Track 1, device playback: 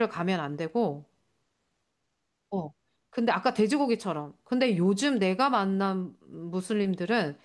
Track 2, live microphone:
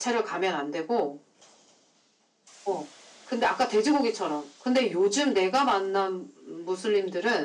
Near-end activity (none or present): none